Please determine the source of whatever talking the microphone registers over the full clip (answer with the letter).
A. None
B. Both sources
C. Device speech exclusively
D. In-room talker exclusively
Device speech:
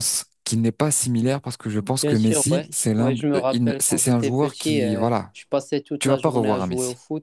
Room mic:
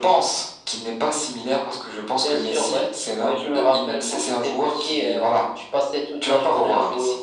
C